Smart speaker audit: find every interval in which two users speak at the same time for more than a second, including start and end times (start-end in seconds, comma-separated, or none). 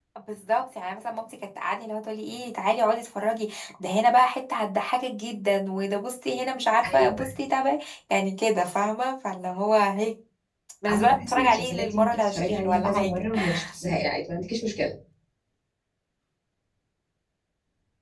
10.9-13.1